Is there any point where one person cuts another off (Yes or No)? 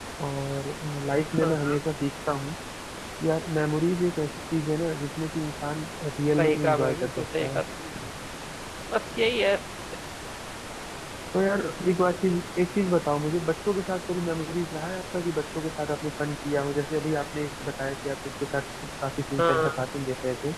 Yes